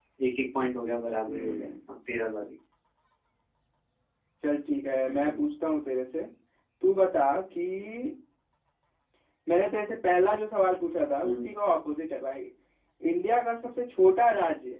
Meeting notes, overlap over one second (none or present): none